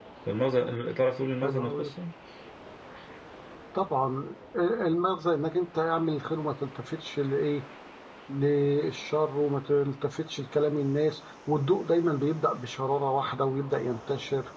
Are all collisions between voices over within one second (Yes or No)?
Yes